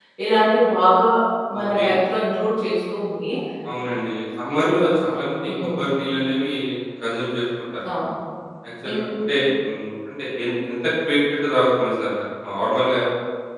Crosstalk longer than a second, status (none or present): none